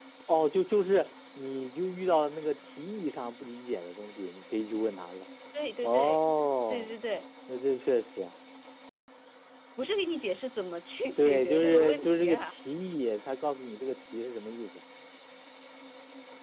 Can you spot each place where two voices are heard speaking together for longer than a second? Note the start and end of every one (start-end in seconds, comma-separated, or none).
11.2-12.5